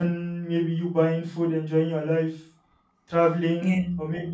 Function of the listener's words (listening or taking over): listening